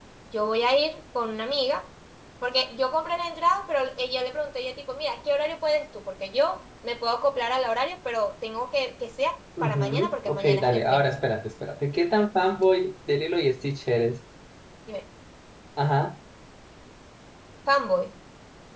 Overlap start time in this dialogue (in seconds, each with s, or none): 9.6 s